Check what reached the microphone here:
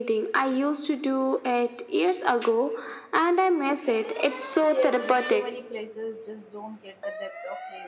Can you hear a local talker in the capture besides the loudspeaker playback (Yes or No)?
Yes